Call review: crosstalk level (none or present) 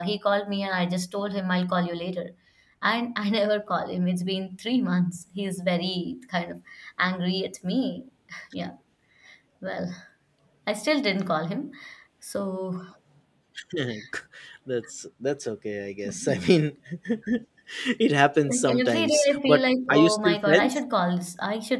present